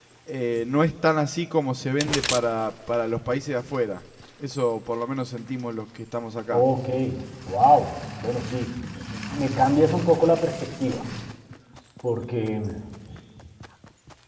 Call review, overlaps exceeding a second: none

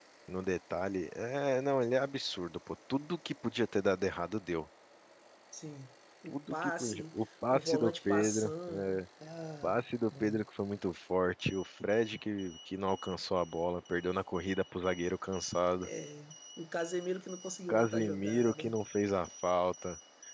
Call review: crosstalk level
present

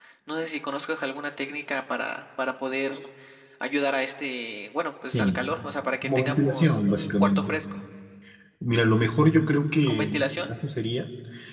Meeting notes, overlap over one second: present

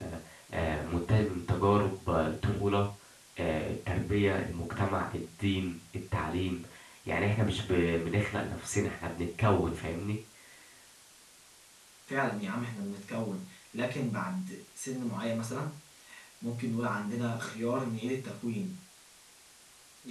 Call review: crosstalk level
none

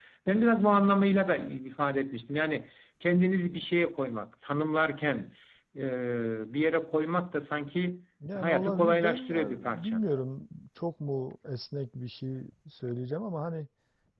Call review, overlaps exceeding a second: present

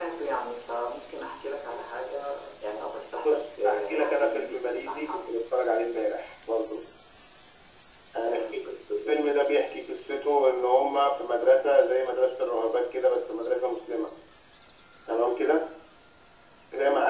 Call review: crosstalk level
present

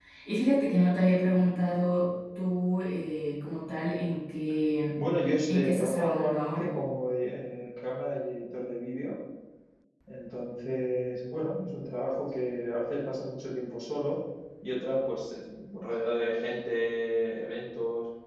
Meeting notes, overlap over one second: present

